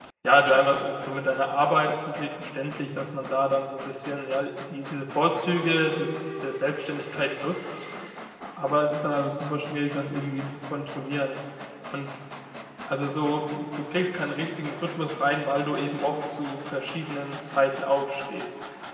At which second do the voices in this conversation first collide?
none

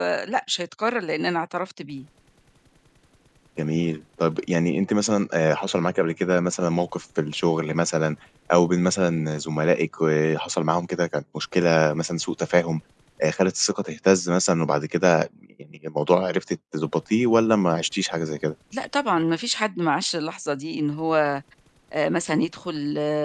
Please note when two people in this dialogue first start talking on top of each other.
none

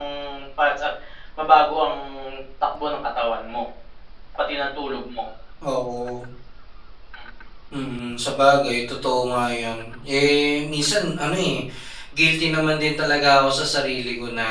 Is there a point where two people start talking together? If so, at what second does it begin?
none

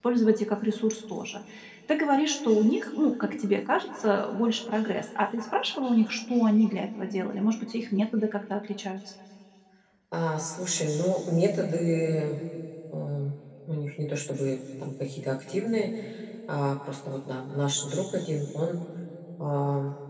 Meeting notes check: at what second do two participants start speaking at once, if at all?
none

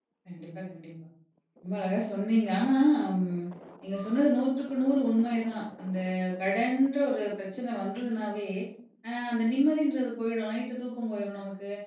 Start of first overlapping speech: none

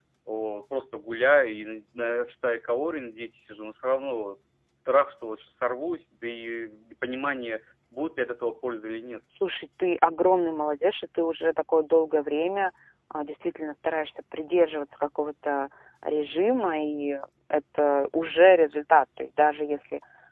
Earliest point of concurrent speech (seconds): none

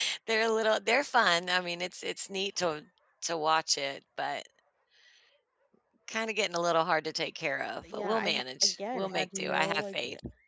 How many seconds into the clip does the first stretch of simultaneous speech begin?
8 s

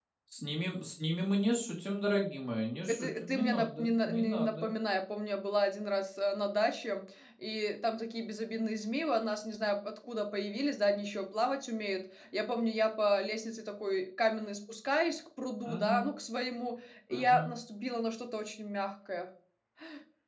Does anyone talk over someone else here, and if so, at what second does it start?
3 s

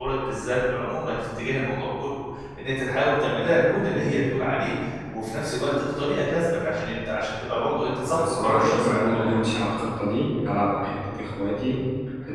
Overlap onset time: 8 s

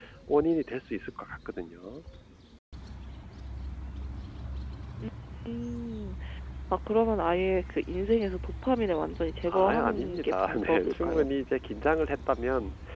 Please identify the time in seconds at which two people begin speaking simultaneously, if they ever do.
9 s

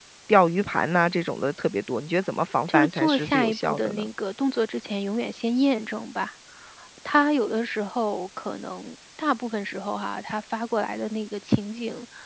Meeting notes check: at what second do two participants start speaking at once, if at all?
3 s

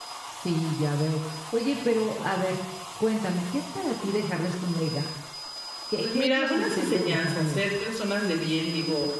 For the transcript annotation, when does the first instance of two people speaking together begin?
6 s

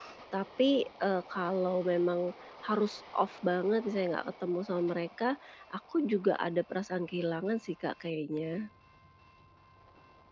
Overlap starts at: none

